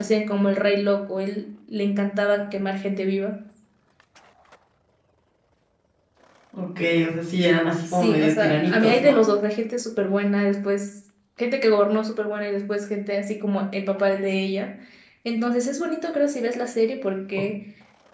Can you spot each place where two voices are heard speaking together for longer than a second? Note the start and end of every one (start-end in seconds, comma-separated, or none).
7.9-9.2